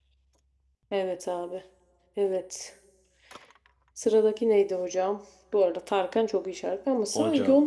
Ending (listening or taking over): listening